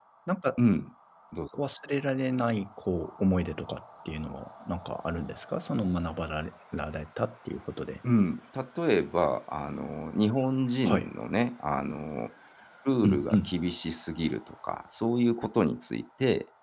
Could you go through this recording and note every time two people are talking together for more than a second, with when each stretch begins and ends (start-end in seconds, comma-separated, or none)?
none